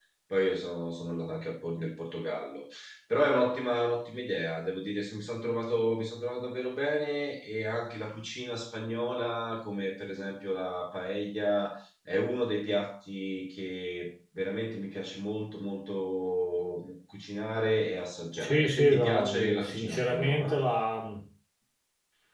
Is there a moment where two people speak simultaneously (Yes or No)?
Yes